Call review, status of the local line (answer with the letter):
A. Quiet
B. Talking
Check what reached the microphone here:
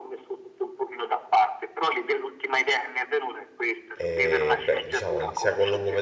B